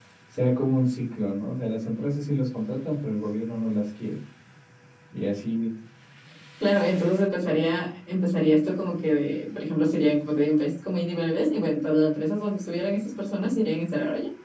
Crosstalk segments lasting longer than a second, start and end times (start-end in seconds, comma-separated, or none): none